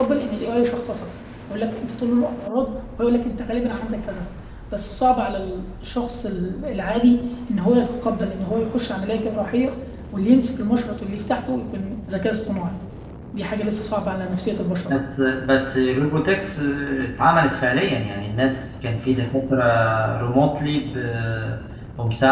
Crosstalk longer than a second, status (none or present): none